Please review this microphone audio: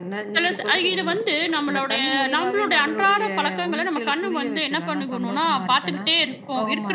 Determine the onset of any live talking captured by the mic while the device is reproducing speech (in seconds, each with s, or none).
none